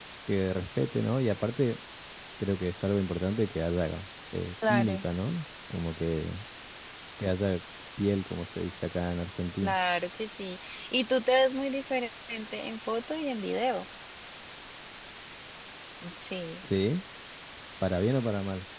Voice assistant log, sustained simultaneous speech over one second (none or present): none